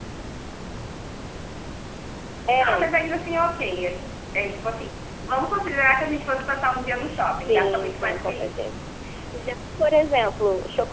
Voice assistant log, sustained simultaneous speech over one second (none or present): present